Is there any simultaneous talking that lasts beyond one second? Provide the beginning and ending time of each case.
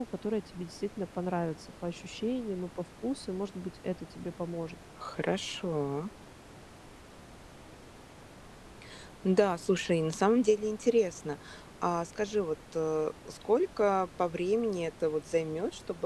none

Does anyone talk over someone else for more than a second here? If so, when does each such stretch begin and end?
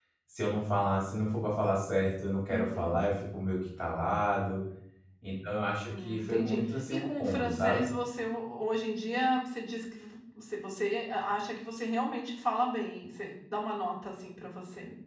5.9-7.9

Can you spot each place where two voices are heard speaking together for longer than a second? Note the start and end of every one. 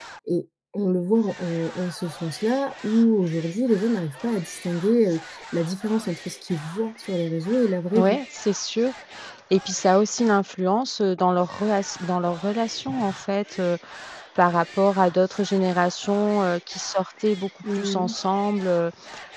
none

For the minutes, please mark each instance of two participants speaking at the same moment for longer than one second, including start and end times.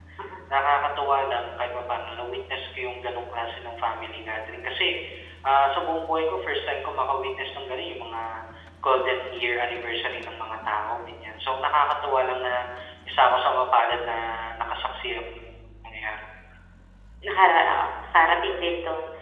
none

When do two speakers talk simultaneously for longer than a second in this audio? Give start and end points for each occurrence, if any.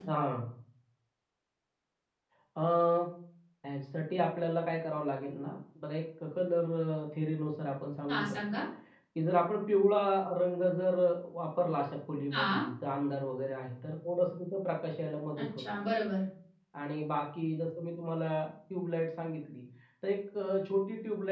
none

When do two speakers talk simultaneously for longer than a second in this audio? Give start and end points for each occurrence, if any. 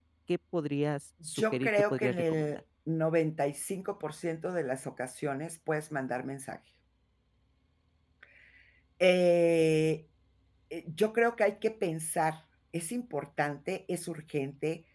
1.4-2.6

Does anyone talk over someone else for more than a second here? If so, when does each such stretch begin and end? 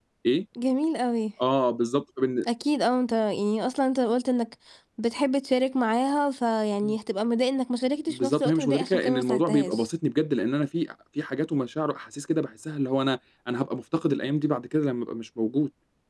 8.1-9.9

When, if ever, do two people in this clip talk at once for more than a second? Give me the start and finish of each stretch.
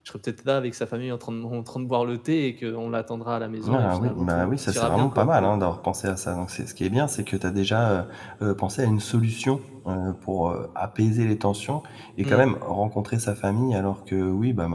3.6-5.5

